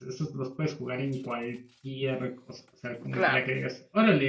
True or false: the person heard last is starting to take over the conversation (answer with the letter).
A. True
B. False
B